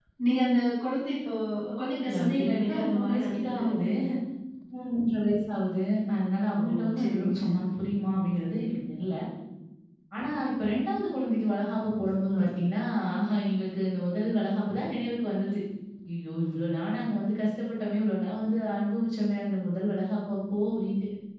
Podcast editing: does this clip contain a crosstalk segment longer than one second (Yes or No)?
Yes